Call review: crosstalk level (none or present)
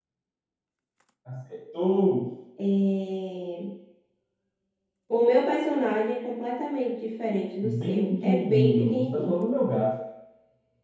present